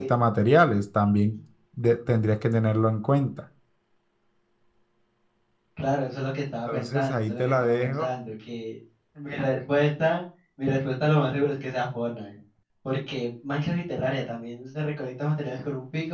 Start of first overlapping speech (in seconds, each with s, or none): 6.7 s